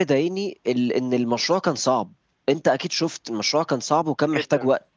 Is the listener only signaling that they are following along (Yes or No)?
No